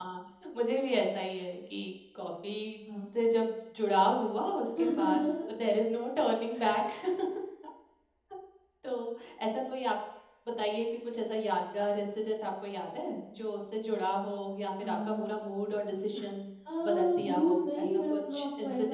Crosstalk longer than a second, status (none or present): present